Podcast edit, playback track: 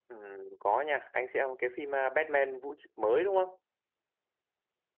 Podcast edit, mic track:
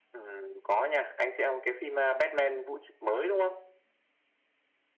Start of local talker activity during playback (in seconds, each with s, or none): none